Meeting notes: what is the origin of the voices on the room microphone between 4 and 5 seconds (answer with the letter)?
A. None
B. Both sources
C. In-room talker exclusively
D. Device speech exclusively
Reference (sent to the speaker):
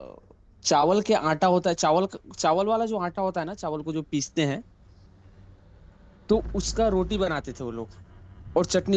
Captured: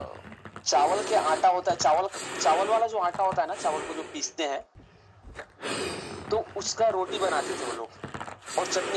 D